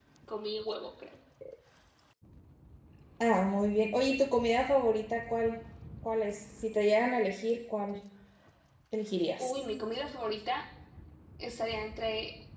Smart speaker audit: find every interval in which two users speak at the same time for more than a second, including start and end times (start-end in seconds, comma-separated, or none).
none